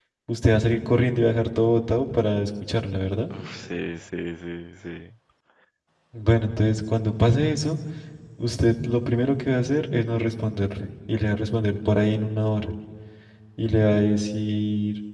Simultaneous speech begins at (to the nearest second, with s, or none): none